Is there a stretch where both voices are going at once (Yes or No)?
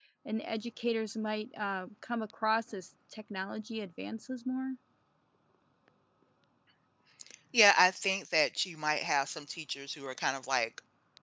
No